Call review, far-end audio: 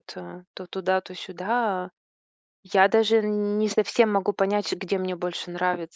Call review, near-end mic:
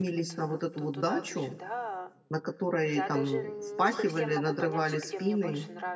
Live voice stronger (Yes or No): Yes